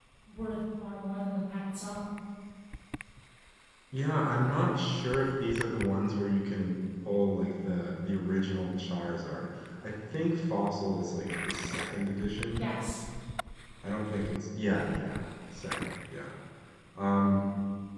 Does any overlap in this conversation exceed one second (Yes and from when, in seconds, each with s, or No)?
No